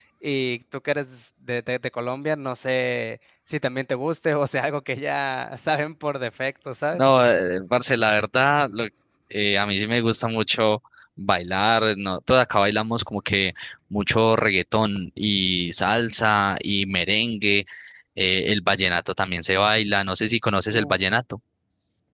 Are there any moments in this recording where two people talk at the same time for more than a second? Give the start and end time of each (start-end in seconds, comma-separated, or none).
none